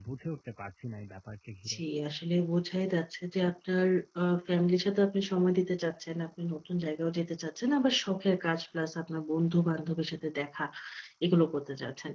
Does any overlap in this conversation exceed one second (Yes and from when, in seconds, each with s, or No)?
No